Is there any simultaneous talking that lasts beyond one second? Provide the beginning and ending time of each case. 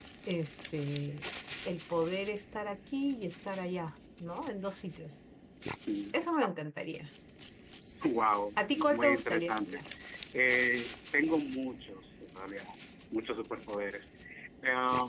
8.6-9.8

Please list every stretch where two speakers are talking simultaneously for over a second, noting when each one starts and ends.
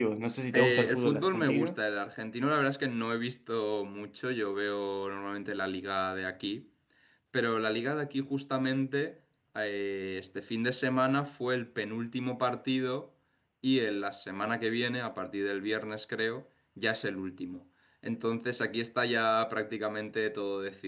0.5-1.8

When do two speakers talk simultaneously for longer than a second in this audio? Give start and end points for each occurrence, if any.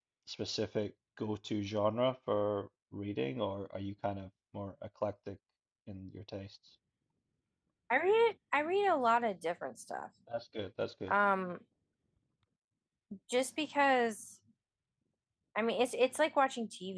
none

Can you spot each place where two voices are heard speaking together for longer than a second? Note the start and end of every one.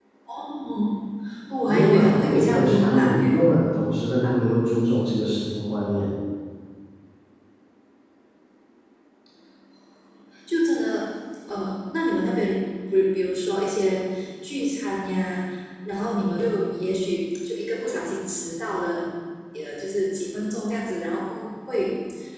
1.7-3.4

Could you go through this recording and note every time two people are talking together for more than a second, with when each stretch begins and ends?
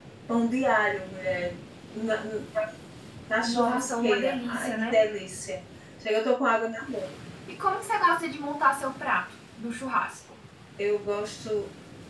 3.4-4.8

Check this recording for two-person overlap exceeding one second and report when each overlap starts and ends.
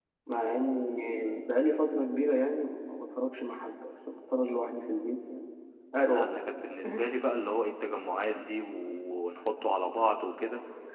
none

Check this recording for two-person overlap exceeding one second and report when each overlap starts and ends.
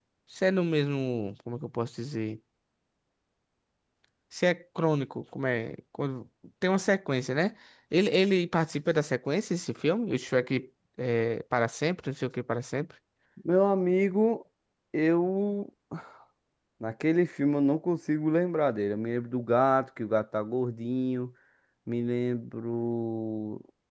none

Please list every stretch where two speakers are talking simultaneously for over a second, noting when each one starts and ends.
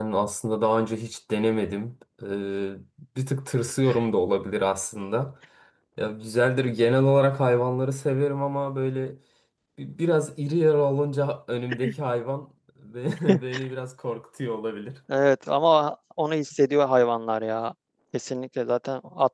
none

